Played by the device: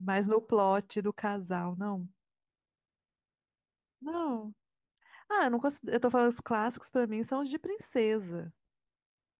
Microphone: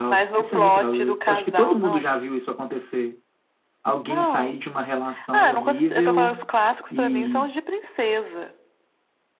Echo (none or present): present